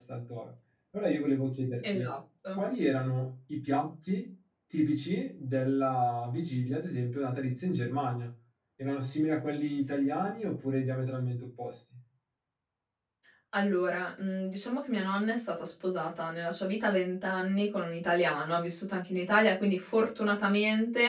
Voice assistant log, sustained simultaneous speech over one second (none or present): none